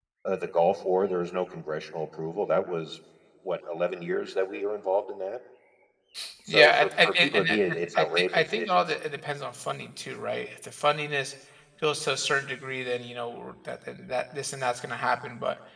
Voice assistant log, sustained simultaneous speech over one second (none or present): present